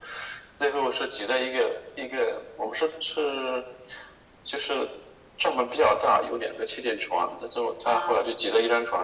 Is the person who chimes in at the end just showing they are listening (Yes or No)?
Yes